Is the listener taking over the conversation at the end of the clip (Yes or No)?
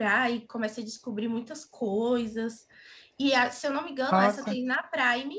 No